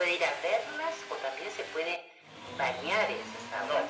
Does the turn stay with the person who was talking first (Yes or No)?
No